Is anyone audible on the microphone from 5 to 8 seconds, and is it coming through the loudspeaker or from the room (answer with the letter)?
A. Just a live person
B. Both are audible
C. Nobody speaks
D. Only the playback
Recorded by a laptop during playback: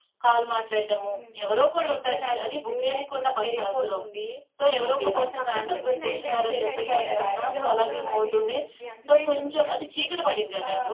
B